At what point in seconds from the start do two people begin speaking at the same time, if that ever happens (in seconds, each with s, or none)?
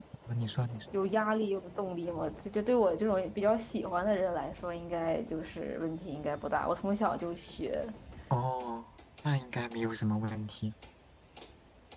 none